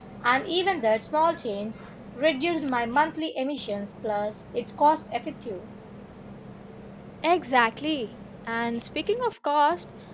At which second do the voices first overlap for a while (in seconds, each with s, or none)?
none